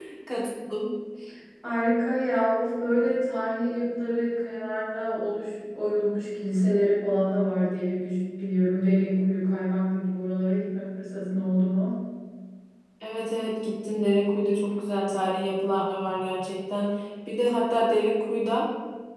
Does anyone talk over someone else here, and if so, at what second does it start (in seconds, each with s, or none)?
none